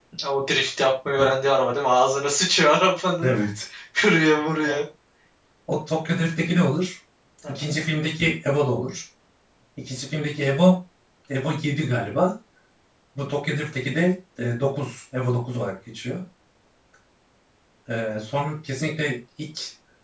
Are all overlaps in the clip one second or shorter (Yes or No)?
Yes